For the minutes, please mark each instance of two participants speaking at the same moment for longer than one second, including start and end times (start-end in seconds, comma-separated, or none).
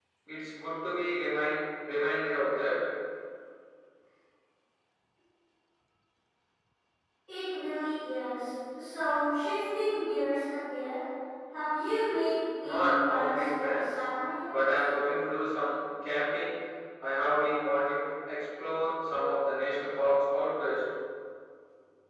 12.6-13.9